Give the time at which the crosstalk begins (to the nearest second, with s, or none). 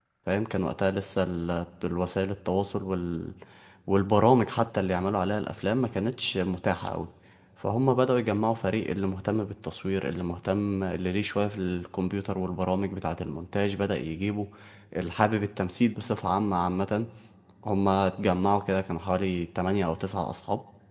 none